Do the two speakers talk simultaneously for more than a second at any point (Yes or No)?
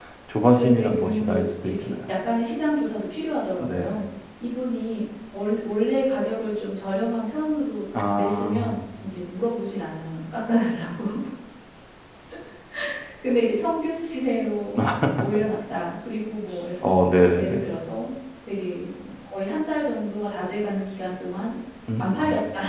Yes